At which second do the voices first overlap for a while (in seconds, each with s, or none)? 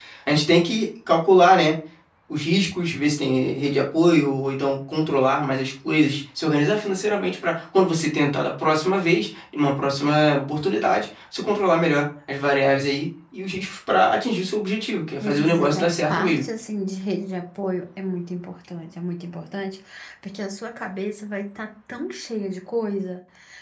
15.2 s